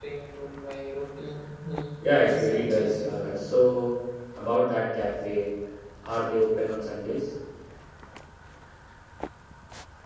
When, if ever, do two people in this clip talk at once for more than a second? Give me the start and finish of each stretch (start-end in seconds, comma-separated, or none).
2.0-3.5